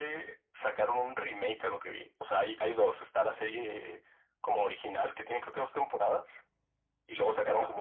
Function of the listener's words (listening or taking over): listening